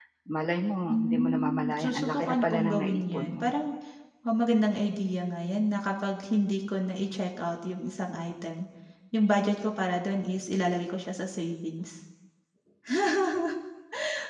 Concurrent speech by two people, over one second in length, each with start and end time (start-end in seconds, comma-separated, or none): 0.9-3.5